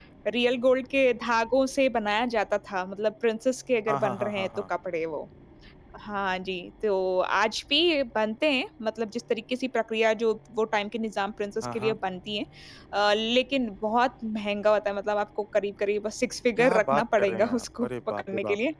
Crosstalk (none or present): present